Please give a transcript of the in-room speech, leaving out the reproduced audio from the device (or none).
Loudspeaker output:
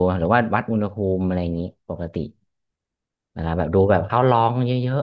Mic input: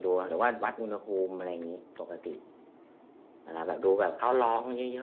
none